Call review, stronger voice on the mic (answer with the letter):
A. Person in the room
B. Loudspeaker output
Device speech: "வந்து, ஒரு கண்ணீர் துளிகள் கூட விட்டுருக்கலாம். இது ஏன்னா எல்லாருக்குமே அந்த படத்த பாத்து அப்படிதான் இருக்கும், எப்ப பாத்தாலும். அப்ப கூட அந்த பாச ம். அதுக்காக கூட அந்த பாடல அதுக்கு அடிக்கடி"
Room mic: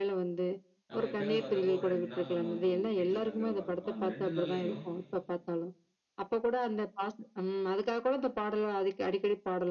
B